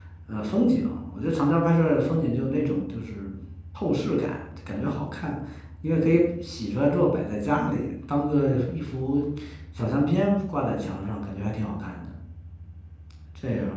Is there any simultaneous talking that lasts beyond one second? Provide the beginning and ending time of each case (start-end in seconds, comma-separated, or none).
none